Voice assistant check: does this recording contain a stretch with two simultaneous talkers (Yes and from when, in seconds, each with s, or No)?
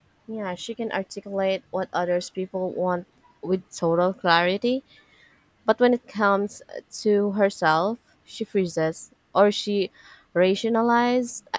No